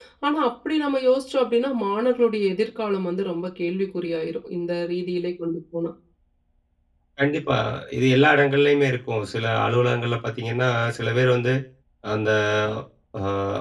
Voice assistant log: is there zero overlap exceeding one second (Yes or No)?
Yes